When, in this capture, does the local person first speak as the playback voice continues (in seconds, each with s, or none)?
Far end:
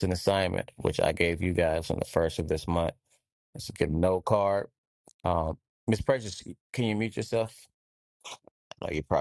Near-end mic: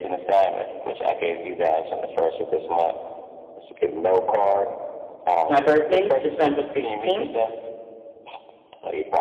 5.5 s